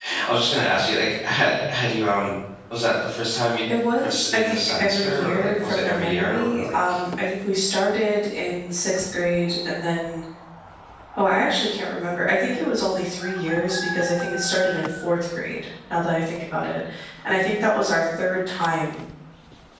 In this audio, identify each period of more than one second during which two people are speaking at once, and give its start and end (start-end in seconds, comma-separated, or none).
4.0-7.0